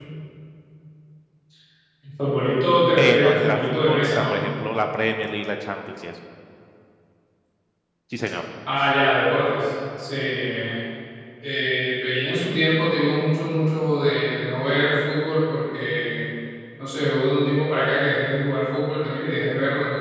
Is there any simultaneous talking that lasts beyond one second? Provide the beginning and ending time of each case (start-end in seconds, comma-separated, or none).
3.0-4.3